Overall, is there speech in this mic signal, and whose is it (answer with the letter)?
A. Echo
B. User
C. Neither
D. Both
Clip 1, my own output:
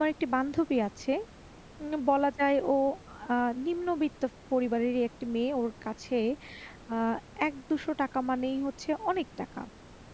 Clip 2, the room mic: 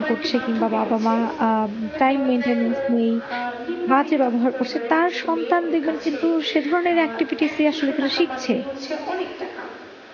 D